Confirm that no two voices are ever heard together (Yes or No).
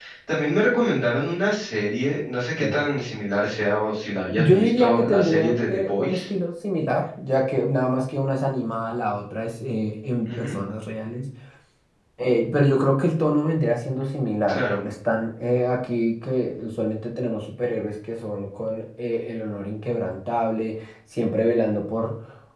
No